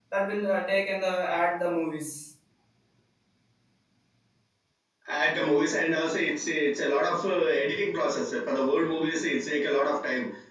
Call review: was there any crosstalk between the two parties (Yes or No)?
No